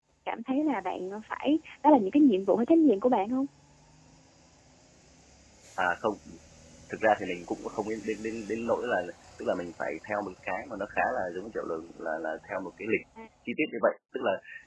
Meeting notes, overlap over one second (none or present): none